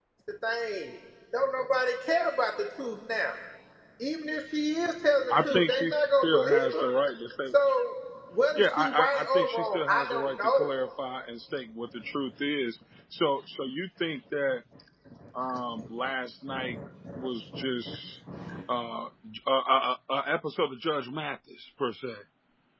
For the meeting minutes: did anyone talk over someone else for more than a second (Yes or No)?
Yes